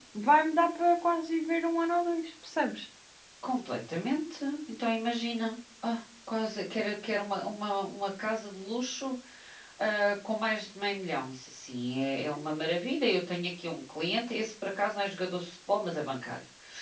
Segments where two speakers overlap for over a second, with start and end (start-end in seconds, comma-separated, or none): none